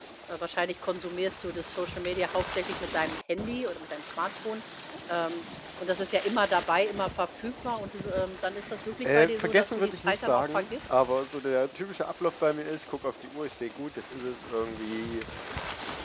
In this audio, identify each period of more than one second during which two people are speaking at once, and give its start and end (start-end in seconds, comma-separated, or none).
9.0-10.9